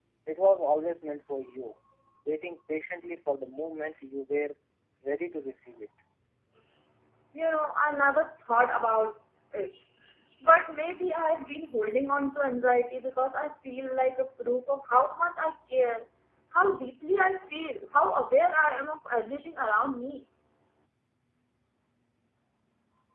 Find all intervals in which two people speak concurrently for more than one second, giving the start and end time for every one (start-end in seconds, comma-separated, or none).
none